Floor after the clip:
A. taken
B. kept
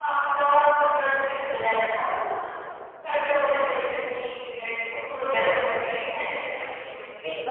A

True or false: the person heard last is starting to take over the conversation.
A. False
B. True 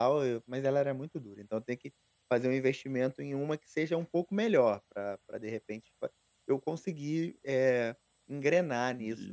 B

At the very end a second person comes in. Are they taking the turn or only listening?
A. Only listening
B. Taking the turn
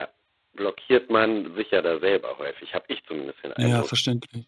B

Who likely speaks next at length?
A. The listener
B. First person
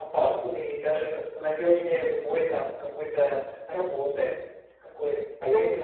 A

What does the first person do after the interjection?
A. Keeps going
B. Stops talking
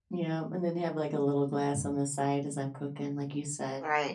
B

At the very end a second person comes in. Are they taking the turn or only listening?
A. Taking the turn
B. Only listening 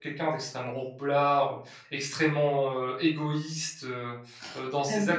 A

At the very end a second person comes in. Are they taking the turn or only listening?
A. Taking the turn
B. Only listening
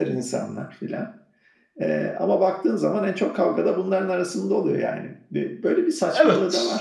A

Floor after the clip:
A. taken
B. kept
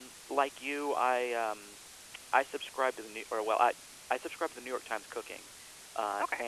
B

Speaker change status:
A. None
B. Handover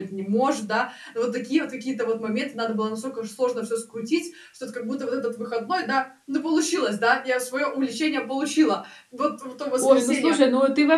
B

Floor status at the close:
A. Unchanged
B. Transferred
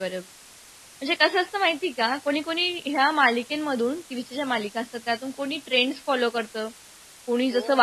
A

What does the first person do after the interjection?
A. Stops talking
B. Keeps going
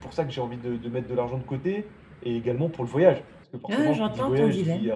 A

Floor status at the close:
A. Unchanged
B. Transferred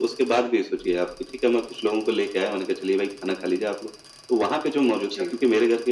A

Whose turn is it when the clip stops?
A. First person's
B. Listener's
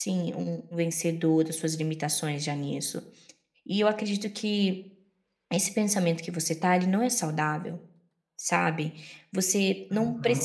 A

